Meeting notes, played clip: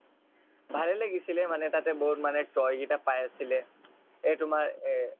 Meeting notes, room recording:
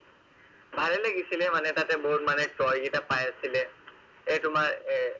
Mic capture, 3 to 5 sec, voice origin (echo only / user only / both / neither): echo only